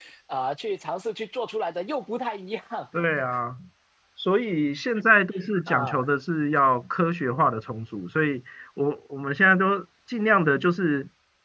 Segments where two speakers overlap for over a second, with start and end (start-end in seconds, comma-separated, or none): none